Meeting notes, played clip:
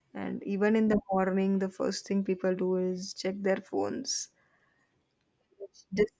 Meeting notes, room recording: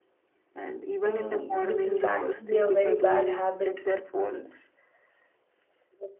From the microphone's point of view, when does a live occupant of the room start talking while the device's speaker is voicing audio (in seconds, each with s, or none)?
1.0 s